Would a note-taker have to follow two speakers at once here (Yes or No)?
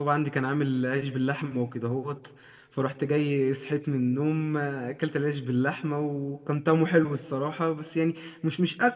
No